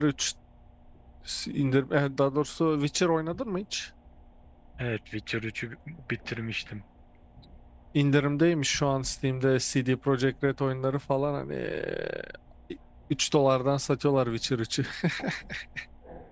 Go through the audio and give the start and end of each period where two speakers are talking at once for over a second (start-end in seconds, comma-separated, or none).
none